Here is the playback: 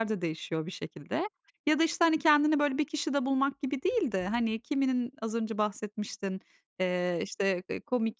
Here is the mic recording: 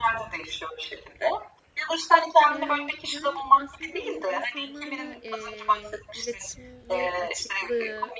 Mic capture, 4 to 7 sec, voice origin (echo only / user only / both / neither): both